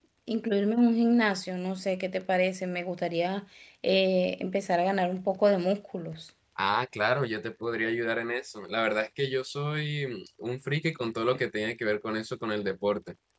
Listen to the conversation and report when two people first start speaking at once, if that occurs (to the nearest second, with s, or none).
none